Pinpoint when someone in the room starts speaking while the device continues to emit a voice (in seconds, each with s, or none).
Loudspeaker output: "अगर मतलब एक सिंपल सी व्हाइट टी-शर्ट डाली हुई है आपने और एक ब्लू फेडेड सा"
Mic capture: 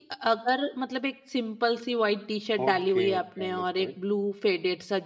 2.6 s